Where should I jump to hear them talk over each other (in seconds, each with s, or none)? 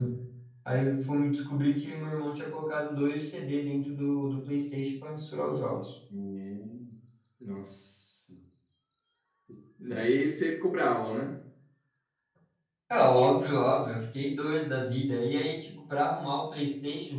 none